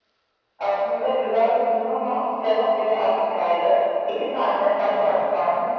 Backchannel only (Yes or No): Yes